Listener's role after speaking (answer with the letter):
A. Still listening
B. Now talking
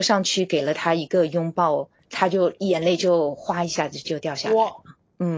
B